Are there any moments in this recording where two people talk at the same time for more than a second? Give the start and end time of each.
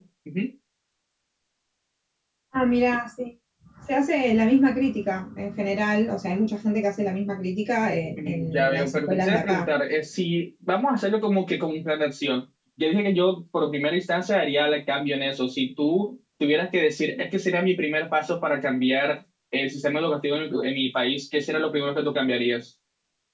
8.2-9.7

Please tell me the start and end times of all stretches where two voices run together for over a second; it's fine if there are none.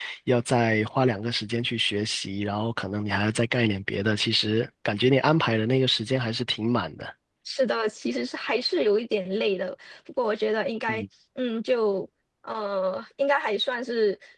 none

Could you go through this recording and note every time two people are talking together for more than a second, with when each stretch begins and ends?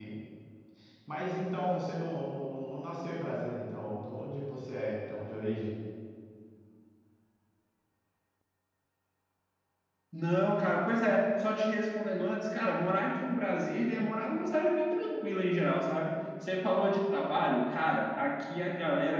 none

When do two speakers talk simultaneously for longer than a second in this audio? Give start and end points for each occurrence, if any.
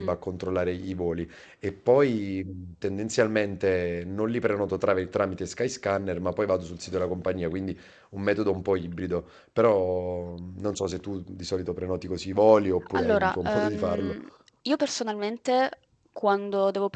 12.9-14.2

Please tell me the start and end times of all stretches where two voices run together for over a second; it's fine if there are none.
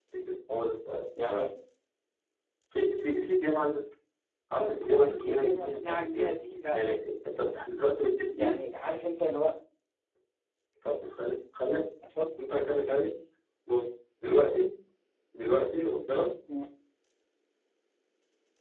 5.0-6.3

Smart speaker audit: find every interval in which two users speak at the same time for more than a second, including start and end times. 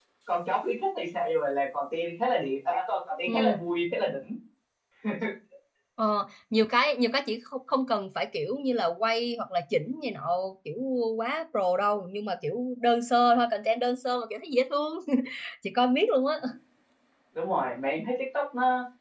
none

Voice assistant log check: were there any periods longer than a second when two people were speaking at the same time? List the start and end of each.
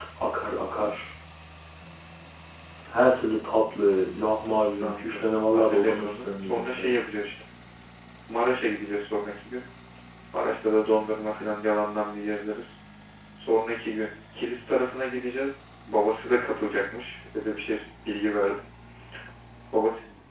4.8-6.9

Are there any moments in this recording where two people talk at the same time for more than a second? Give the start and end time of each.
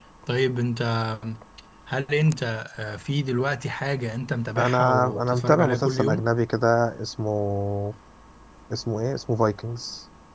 4.6-6.2

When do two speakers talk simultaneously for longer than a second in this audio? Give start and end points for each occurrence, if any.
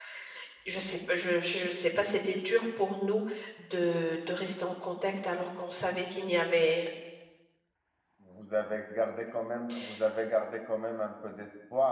none

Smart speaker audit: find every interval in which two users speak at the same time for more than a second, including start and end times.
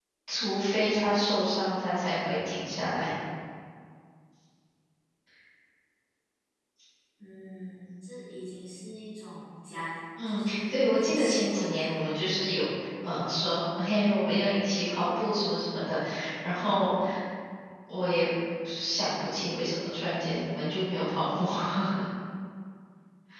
10.2-11.9

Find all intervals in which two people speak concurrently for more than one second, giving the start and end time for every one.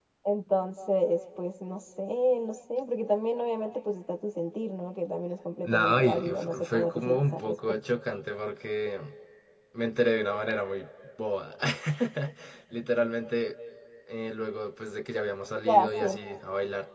5.6-7.8

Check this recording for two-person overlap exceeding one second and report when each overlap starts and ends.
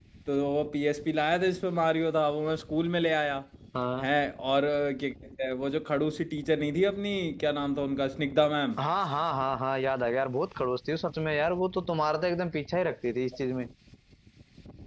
none

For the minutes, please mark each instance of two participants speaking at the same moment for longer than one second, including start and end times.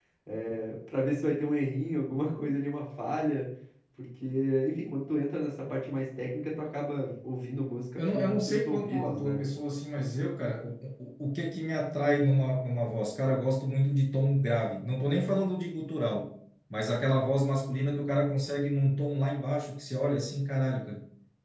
8.0-9.4

